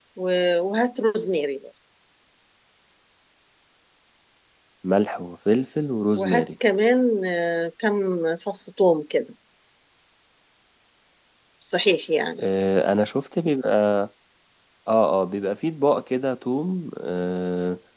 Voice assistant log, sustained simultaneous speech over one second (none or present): none